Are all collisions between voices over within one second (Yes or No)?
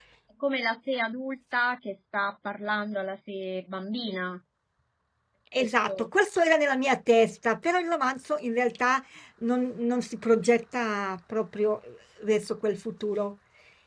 Yes